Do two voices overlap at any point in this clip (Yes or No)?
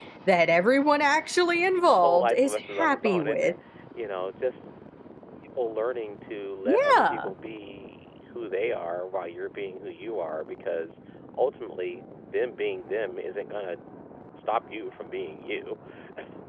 Yes